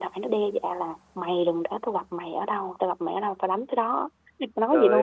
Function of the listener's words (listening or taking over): taking over